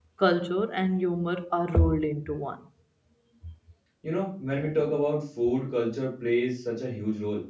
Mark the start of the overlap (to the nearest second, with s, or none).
none